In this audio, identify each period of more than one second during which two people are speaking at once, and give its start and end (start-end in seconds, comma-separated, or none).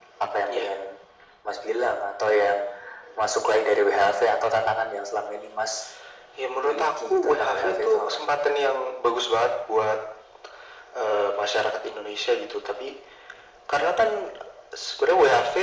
6.7-8.2